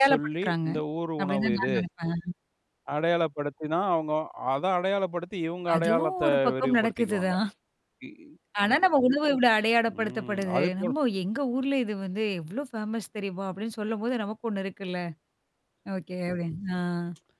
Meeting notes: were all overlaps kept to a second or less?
No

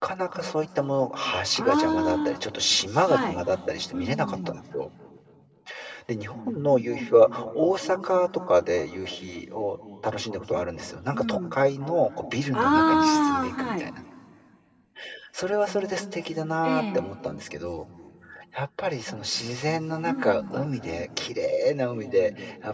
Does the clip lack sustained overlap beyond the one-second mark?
No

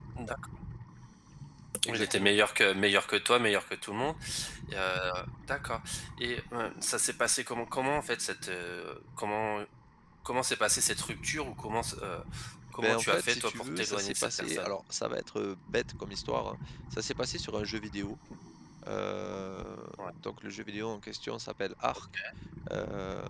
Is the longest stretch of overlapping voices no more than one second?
No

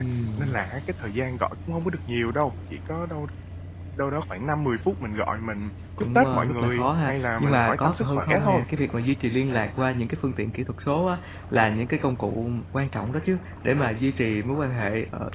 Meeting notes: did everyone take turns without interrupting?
No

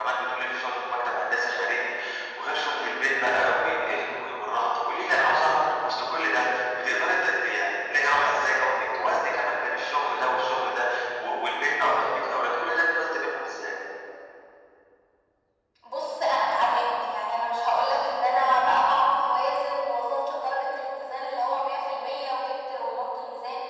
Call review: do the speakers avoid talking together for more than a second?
Yes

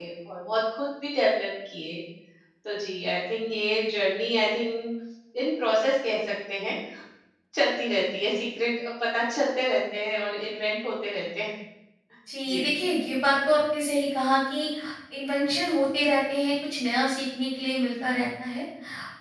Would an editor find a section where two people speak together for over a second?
No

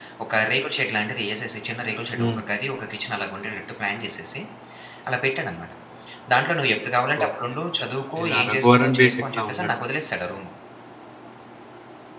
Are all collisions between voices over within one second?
No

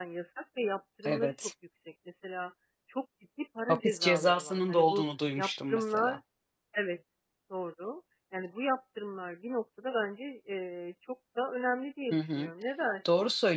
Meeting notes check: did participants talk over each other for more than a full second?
Yes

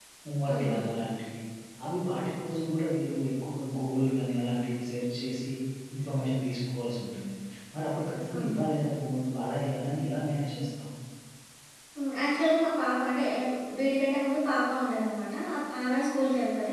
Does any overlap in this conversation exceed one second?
No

